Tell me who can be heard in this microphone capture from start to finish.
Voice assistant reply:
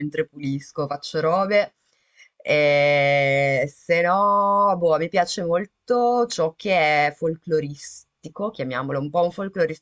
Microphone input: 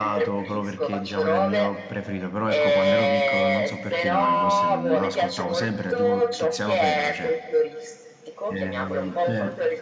both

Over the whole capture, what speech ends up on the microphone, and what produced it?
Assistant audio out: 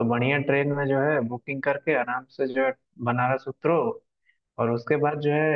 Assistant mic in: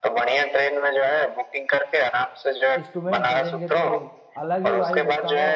both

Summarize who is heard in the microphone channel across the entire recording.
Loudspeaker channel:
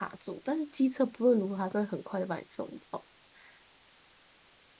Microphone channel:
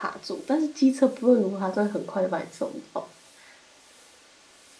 echo only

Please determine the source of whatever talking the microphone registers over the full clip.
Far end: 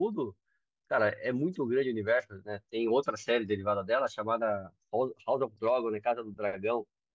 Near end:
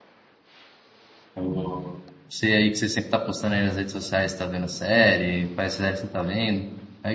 user only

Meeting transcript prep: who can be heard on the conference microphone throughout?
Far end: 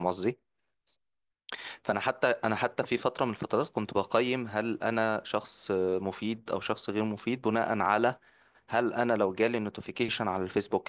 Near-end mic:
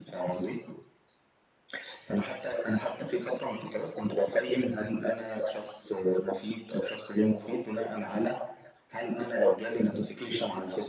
echo only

